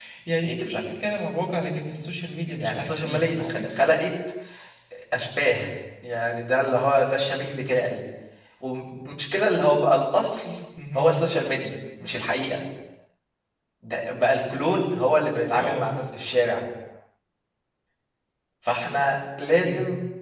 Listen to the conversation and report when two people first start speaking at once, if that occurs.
2.6 s

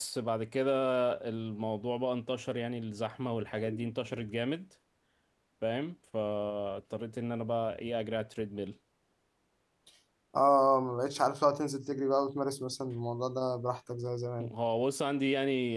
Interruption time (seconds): none

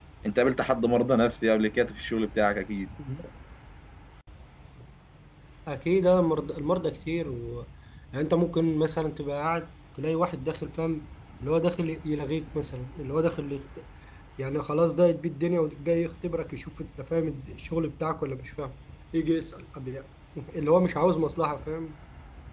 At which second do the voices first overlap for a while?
none

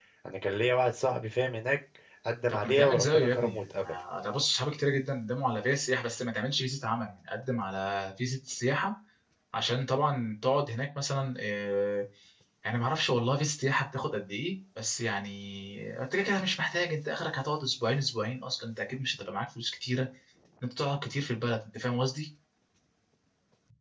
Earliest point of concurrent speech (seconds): 2.5 s

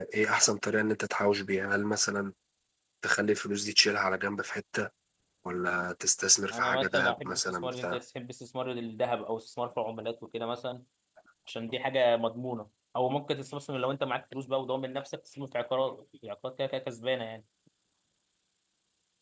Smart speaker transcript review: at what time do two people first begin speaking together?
6.5 s

